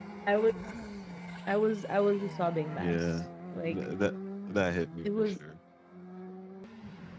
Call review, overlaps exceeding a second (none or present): none